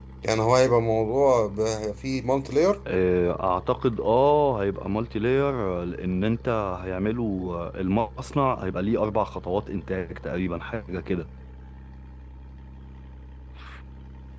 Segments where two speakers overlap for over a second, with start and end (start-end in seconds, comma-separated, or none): none